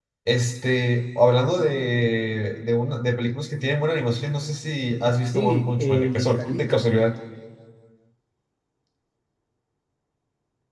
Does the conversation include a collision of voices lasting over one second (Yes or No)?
Yes